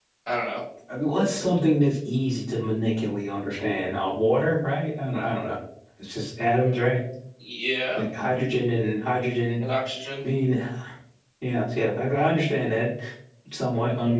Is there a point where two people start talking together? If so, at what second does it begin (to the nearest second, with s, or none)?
none